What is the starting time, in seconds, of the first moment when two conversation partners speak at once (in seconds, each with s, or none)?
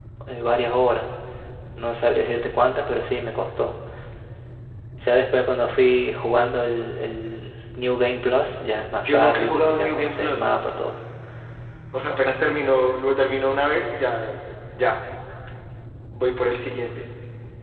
9.0 s